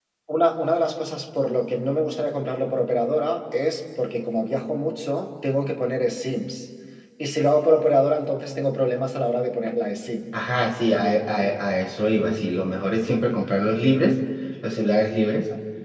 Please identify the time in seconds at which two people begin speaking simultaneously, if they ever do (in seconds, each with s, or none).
none